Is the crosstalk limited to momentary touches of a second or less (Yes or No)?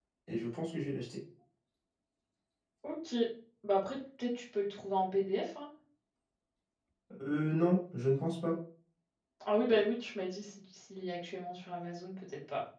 Yes